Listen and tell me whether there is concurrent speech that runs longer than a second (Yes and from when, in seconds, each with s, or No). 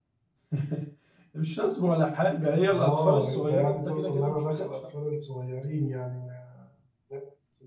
Yes, from 2.7 s